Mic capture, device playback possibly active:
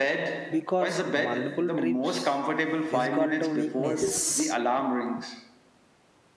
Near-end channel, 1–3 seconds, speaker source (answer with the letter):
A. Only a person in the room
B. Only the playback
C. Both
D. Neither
C